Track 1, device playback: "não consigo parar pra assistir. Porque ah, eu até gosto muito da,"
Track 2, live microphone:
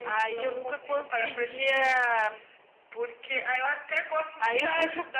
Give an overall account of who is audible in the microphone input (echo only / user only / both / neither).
both